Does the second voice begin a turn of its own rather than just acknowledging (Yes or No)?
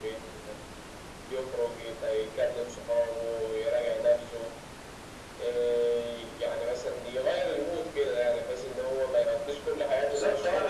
Yes